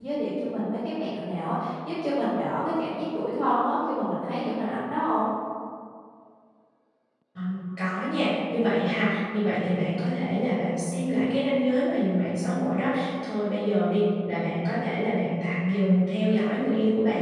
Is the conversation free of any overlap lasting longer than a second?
Yes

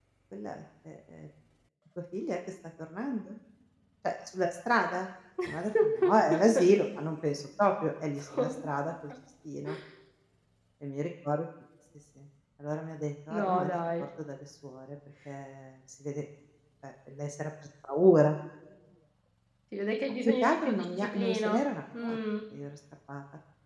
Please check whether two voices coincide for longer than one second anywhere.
Yes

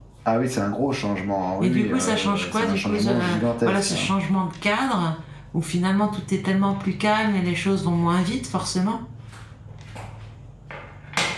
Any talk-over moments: Yes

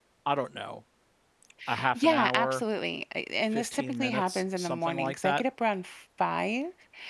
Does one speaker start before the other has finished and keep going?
Yes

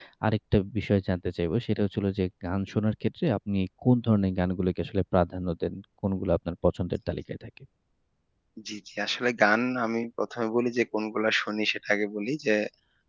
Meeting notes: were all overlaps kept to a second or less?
Yes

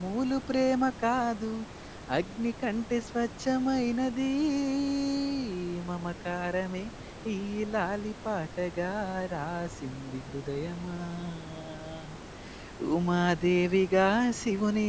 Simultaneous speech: No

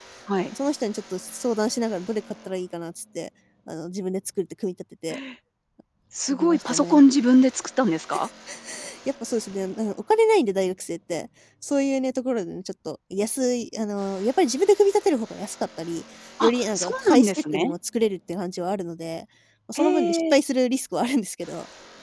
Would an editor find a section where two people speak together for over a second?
Yes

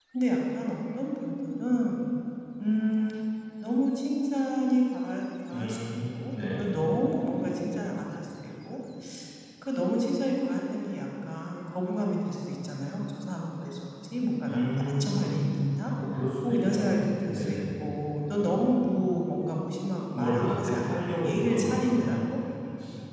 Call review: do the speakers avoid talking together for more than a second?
No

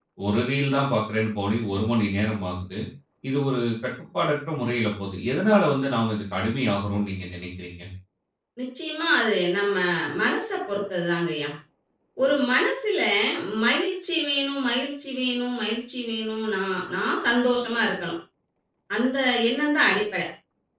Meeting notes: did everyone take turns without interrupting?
Yes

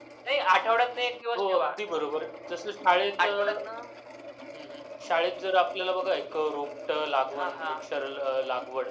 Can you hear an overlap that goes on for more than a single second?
No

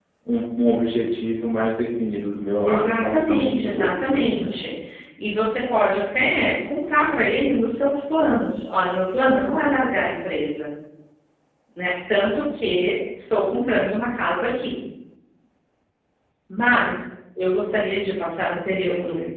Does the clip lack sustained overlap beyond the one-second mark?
No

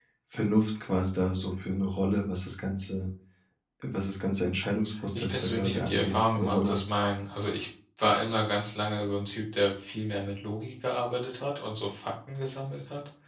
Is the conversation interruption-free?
No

